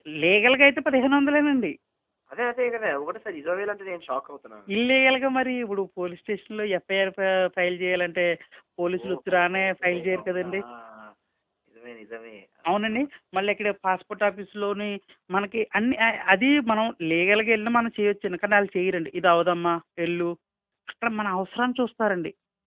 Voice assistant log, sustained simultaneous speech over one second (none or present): present